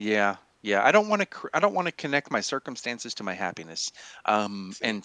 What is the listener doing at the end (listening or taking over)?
listening